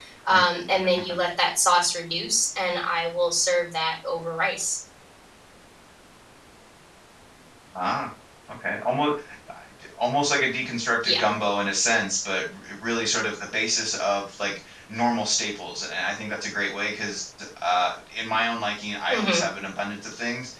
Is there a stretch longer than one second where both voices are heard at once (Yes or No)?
No